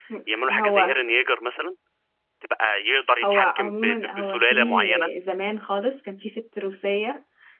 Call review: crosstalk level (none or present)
present